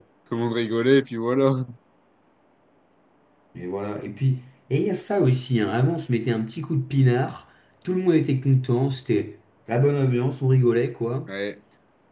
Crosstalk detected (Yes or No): No